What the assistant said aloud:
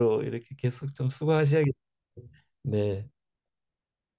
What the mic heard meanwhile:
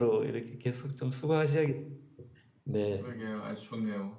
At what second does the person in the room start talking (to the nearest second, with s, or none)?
3 s